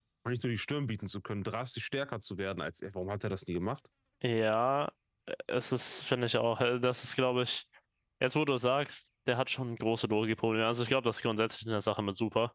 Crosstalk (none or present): none